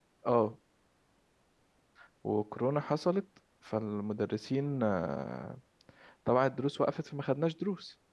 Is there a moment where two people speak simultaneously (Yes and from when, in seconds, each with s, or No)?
No